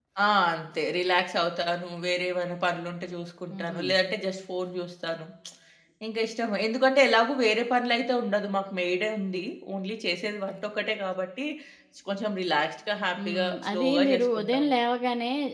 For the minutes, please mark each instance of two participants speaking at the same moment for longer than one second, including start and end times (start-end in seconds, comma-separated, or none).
13.2-14.7